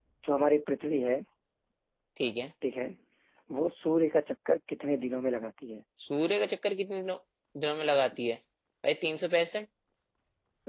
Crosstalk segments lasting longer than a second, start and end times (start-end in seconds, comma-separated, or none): none